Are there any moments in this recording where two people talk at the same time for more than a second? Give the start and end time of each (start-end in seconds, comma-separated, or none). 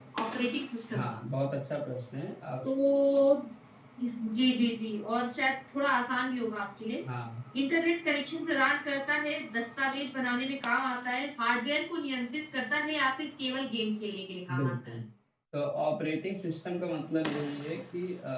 none